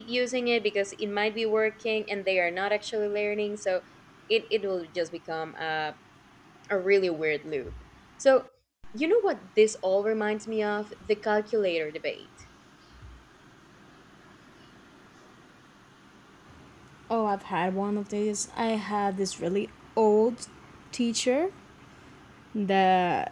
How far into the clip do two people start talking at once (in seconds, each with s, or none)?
none